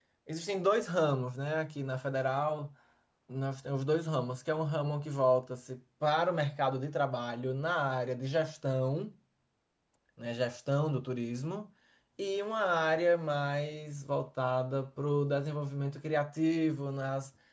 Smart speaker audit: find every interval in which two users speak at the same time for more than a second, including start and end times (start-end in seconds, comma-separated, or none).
none